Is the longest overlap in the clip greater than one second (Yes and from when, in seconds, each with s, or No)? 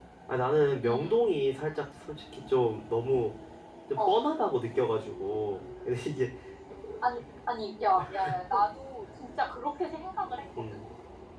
No